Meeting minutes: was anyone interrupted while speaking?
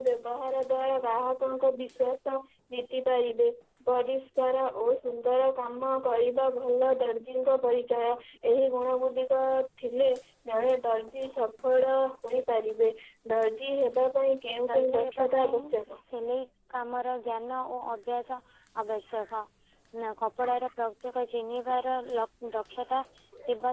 Yes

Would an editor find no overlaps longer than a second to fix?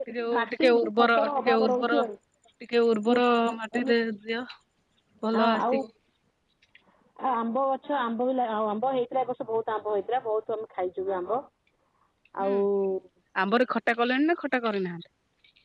No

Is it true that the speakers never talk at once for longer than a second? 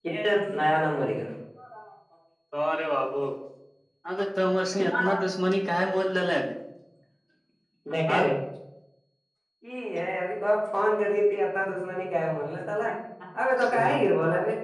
Yes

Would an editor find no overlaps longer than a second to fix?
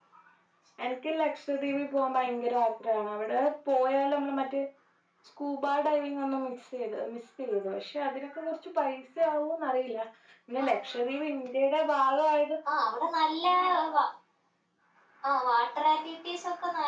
Yes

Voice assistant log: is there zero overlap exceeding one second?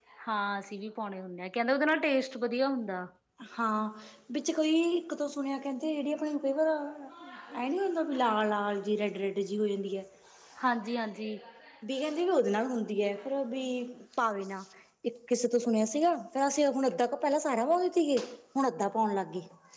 Yes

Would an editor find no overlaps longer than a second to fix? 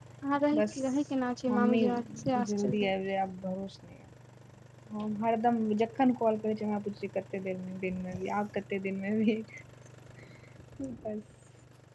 No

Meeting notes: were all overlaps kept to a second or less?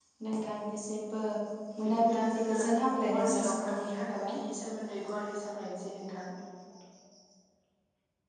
No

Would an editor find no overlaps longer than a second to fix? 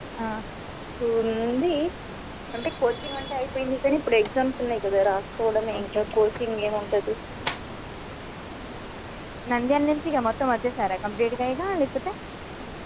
Yes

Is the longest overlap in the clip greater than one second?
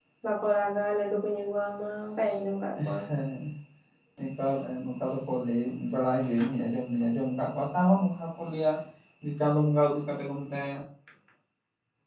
No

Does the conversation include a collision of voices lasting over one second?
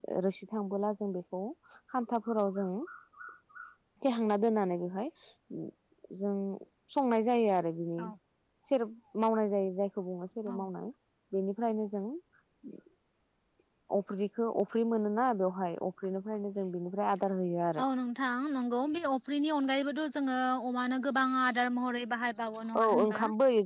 No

